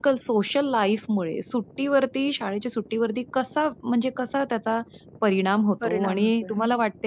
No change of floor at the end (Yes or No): Yes